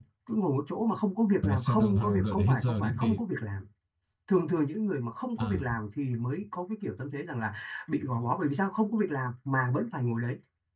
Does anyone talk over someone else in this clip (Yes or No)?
Yes